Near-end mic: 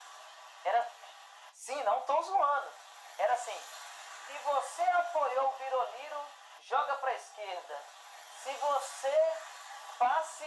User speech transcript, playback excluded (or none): none